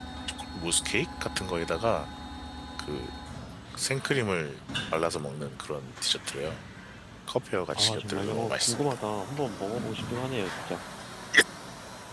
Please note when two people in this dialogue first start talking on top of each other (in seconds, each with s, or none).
7.8 s